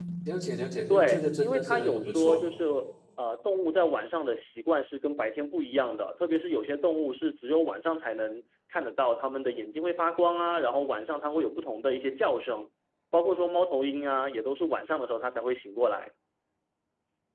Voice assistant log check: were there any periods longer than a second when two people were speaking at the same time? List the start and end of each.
0.9-2.4

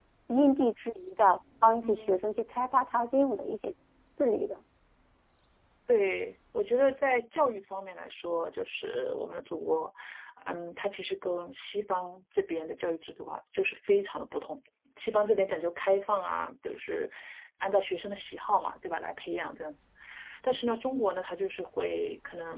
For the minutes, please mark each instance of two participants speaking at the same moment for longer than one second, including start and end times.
none

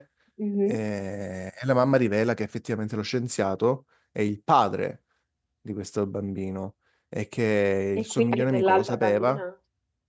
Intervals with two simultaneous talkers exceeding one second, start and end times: 8.0-9.4

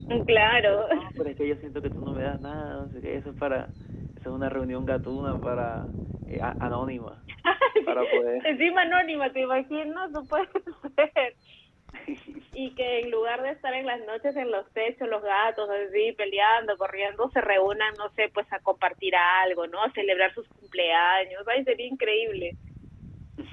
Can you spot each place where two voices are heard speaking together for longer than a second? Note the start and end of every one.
none

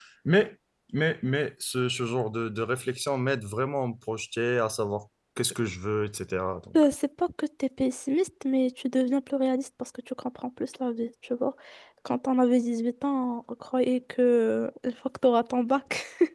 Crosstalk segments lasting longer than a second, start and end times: none

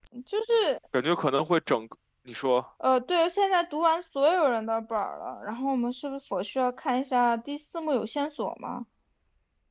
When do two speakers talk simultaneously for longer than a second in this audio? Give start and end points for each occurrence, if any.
none

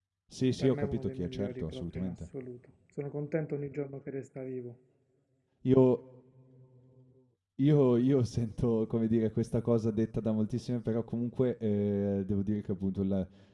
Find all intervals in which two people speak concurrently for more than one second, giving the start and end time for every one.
0.6-2.1

